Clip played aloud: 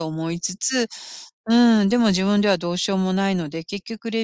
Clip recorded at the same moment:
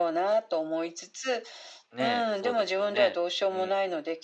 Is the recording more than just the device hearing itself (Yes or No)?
Yes